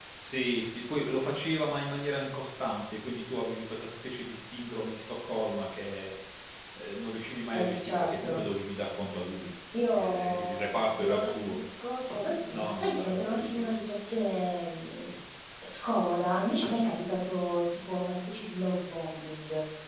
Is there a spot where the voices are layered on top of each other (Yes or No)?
Yes